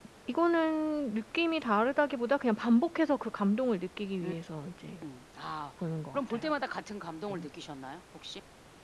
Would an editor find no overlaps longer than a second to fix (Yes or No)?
Yes